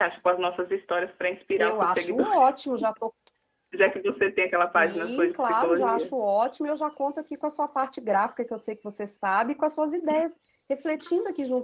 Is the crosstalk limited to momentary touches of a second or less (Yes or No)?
No